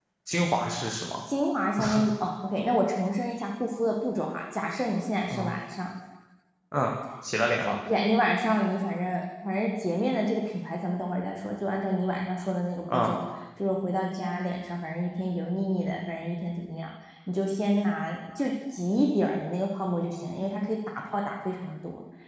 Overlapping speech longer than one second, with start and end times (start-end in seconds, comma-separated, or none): none